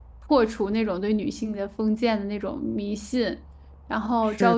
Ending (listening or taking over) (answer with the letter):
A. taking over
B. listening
A